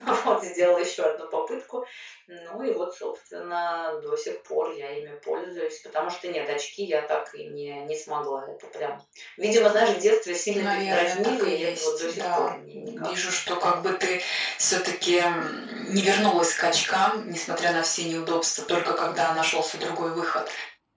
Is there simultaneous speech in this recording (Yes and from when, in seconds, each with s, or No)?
Yes, from 10.5 s